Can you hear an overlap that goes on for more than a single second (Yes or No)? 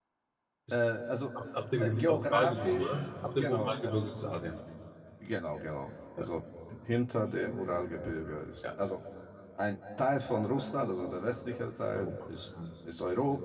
Yes